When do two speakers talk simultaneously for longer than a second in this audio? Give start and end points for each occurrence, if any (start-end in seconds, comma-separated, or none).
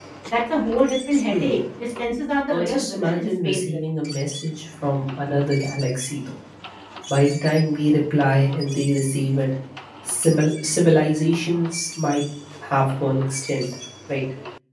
2.5-3.8